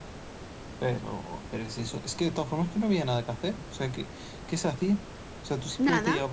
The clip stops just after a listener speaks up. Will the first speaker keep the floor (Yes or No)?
Yes